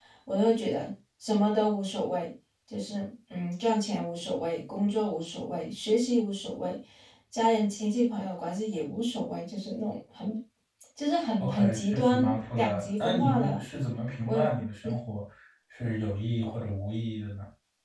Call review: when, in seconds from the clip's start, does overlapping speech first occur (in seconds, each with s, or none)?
11.4 s